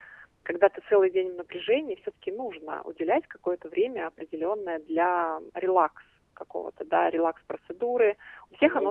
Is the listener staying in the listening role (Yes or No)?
Yes